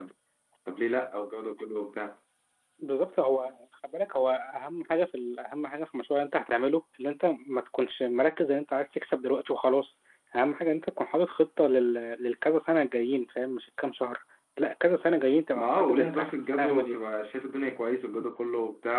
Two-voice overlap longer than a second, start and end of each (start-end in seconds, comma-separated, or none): 15.5-16.9